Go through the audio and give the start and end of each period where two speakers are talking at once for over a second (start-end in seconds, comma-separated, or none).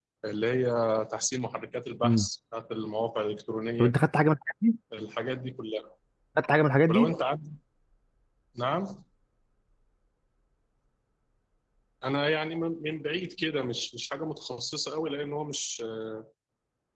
none